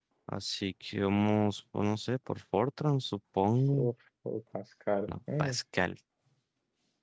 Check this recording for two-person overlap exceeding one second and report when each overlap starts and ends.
none

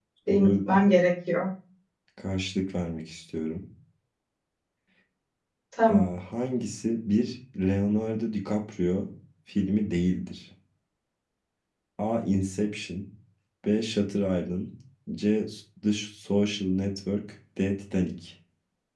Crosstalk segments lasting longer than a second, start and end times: none

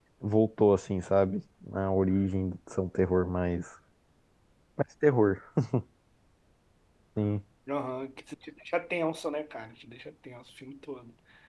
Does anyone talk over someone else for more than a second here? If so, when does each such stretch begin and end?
none

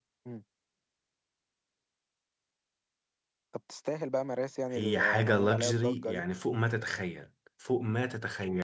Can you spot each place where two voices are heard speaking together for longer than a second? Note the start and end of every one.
4.8-6.2

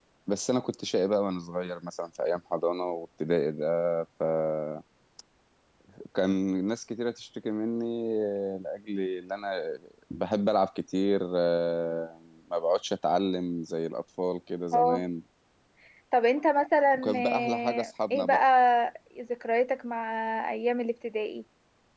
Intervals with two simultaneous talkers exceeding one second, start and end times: 16.9-18.4

